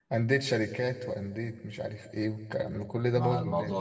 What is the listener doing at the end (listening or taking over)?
taking over